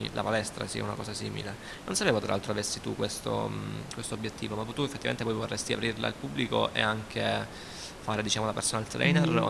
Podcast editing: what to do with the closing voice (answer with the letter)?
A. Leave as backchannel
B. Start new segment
B